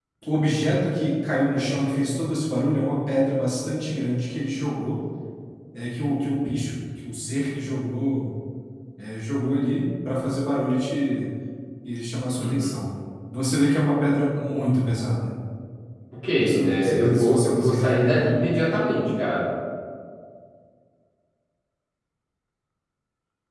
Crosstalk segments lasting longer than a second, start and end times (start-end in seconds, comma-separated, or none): 16.4-18.4